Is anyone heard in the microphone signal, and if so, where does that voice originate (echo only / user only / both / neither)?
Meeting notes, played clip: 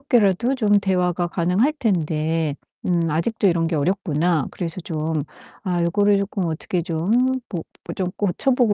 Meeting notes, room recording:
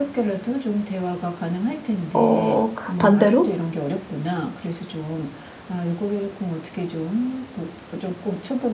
both